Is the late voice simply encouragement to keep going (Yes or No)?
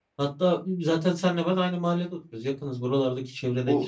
No